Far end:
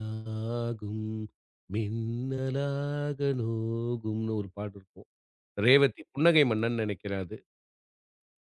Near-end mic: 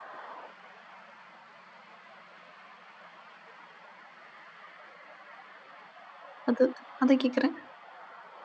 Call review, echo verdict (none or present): none